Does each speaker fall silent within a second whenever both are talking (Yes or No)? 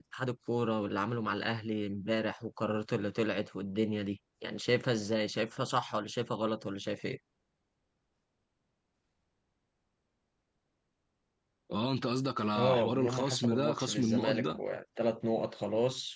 No